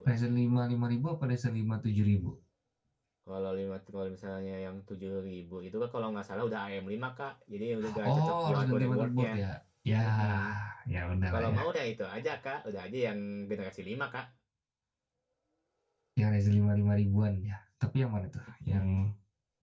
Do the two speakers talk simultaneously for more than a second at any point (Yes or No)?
Yes